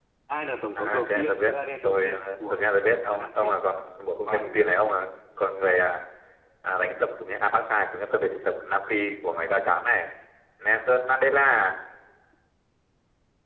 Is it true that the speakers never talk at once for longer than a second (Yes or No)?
No